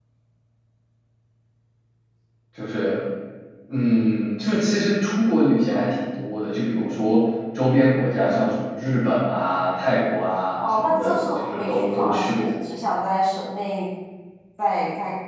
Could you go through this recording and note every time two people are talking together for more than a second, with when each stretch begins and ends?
10.6-12.5

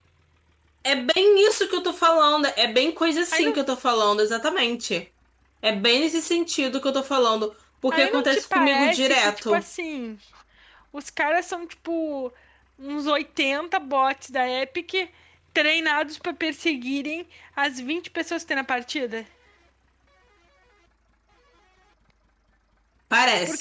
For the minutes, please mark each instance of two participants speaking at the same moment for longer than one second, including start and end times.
7.9-9.6

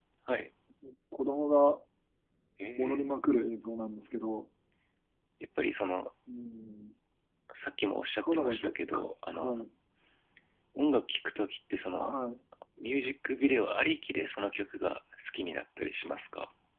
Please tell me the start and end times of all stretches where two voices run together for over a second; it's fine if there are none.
8.2-9.6

